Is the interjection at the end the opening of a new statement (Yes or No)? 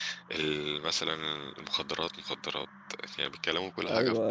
Yes